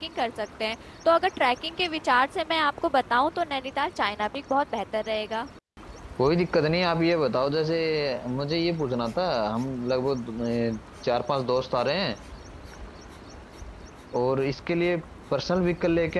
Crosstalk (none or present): none